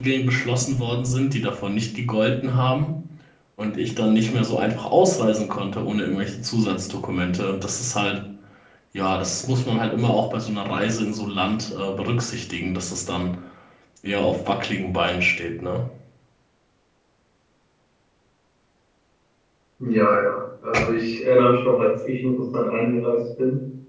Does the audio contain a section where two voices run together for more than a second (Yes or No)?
No